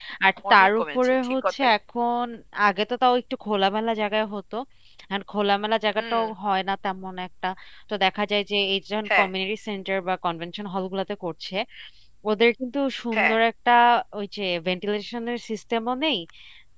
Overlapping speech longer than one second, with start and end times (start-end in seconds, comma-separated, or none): 0.5-1.7